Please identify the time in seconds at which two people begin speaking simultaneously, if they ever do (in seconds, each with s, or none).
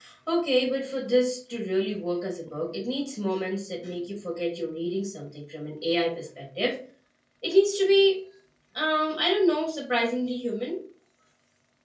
none